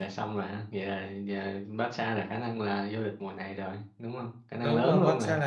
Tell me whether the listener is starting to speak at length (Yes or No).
Yes